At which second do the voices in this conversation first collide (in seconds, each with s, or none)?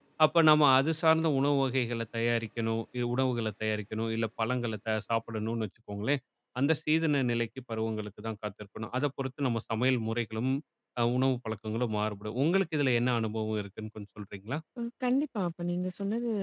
none